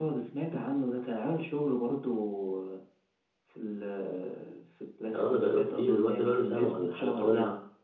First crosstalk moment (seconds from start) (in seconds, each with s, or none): 5.1 s